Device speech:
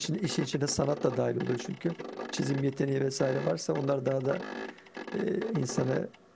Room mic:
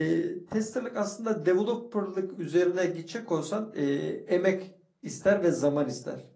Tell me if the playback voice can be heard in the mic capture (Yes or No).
No